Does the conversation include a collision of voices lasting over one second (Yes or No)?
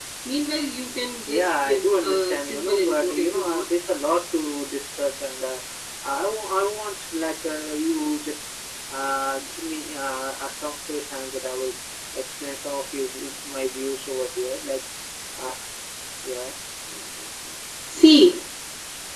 Yes